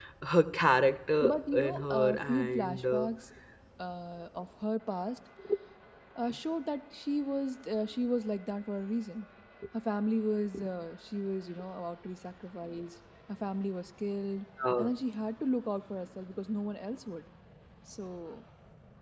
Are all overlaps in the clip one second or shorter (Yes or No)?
No